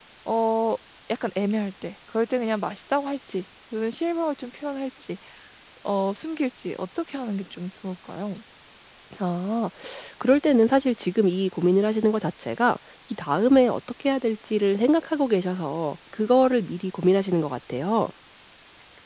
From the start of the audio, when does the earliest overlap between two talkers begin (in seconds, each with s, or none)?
none